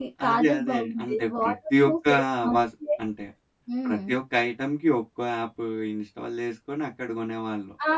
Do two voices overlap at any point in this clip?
Yes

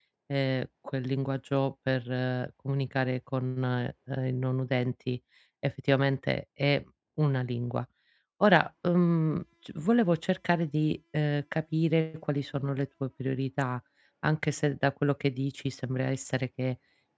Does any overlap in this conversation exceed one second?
No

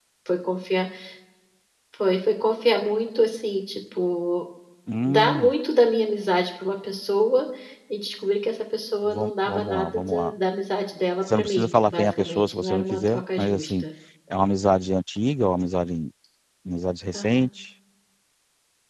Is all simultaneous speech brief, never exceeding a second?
No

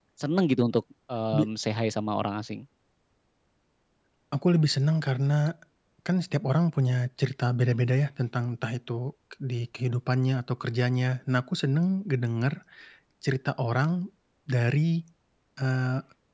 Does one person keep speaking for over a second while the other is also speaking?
No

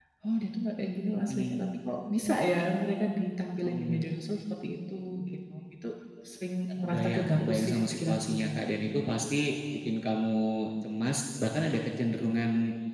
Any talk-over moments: Yes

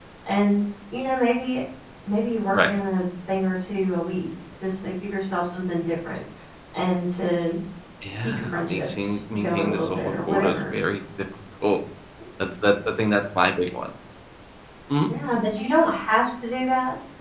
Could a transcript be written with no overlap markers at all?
No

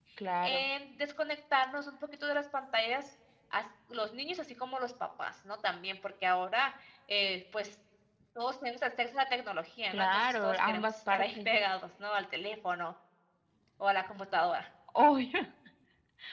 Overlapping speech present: Yes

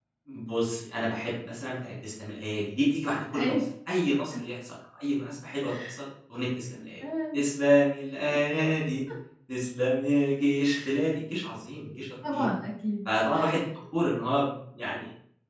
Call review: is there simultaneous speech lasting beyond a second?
No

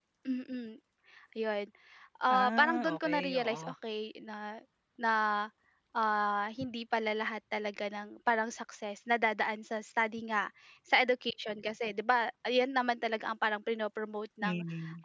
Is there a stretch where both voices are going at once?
Yes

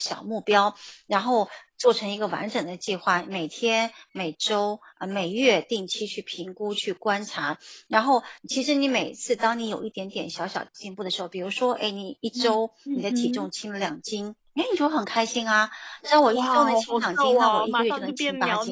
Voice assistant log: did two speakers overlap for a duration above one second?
Yes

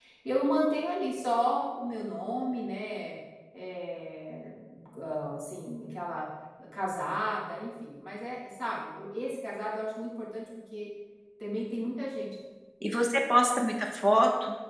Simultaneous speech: No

